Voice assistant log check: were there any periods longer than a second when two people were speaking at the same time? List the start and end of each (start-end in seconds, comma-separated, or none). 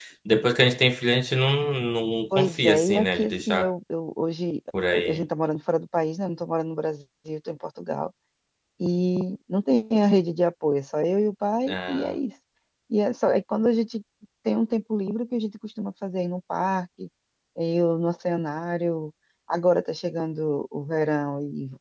2.4-3.7